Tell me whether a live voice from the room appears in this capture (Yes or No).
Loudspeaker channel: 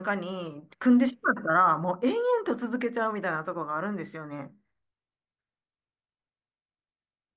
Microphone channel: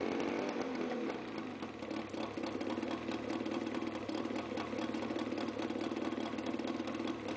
No